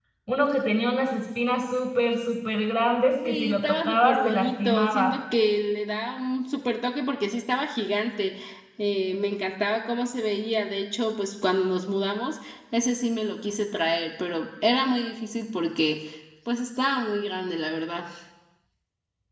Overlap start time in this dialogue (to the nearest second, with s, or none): 3 s